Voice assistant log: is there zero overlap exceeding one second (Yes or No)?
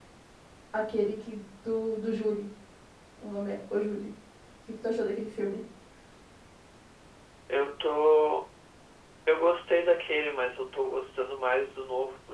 Yes